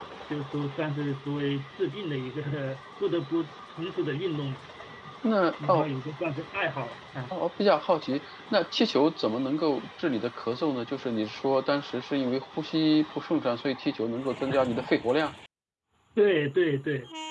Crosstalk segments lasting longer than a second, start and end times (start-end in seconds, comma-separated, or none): none